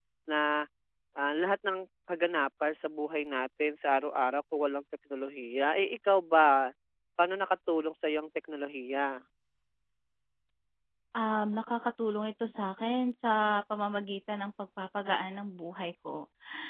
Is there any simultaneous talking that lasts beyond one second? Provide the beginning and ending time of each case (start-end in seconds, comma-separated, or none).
none